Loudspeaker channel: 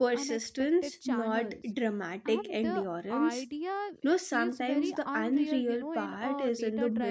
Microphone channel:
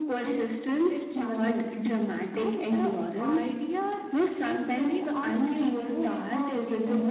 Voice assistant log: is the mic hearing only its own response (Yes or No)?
Yes